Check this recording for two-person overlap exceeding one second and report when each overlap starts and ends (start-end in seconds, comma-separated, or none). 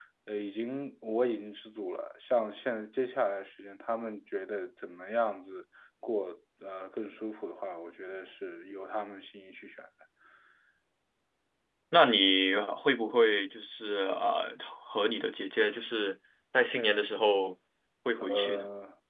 none